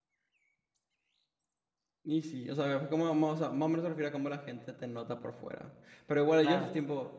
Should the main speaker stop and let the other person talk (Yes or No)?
No